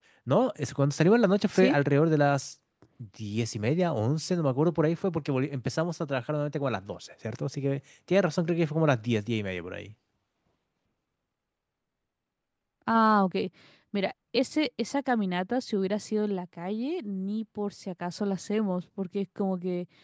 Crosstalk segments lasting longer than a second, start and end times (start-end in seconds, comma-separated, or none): none